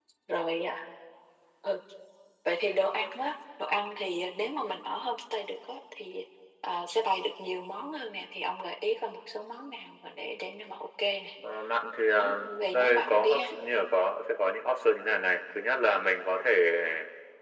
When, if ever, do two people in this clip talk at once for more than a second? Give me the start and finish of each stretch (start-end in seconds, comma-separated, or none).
12.2-13.5